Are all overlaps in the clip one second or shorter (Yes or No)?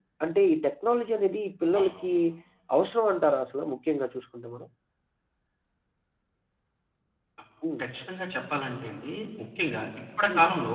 Yes